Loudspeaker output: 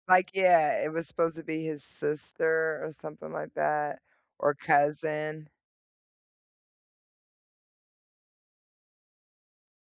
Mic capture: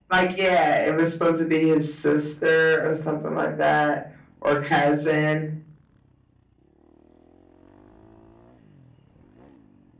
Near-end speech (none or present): none